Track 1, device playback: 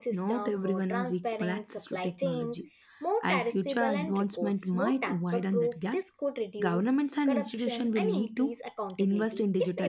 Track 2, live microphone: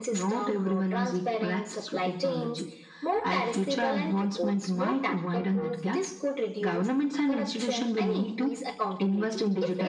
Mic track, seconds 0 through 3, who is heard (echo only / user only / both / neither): echo only